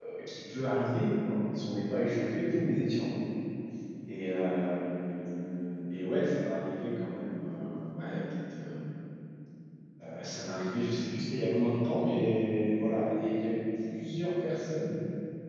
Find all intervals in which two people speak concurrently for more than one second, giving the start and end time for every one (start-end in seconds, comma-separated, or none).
none